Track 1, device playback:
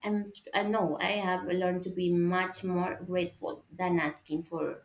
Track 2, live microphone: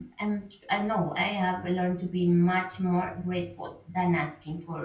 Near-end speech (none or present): none